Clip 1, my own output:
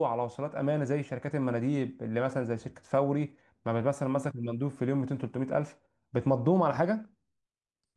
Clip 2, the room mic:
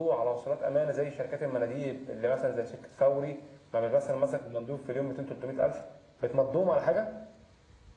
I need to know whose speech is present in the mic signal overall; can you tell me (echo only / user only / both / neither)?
echo only